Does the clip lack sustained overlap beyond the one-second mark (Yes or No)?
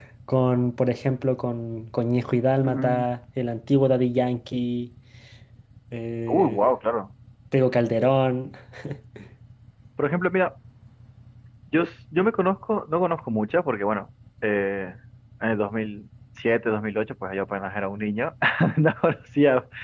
Yes